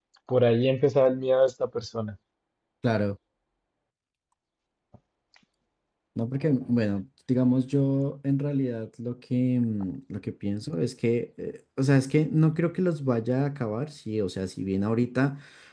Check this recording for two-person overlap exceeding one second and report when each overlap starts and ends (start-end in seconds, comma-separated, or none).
none